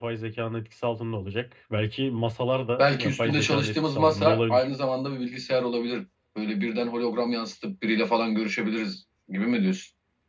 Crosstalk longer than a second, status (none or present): present